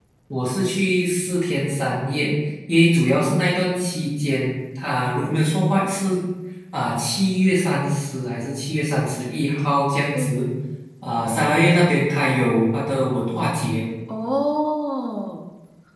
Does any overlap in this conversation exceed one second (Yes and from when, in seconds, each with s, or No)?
No